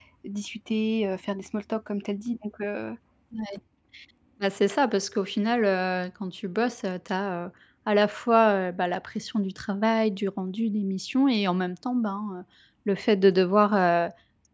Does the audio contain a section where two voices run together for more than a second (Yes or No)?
No